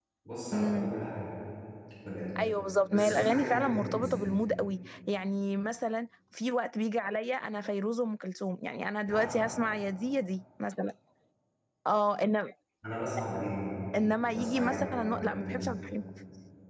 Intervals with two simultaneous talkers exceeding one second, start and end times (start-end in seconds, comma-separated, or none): 2.9-4.3, 14.3-15.7